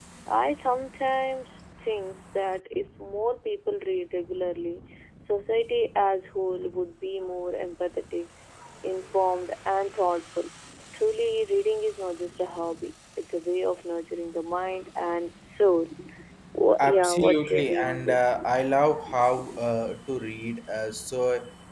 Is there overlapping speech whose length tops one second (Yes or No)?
Yes